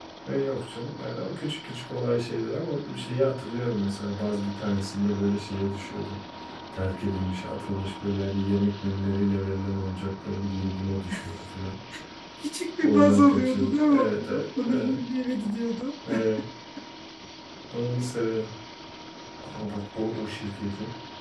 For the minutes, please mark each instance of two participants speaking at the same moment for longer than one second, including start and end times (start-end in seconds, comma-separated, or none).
12.8-14.9